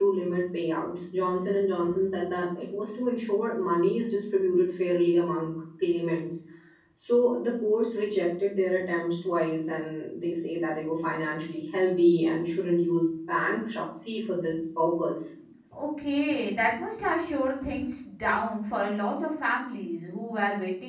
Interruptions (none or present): none